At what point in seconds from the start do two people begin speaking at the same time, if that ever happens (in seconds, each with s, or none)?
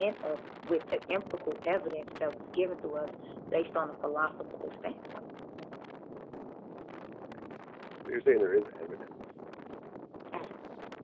none